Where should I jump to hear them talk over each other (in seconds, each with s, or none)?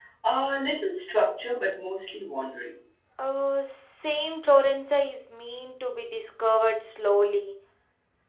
none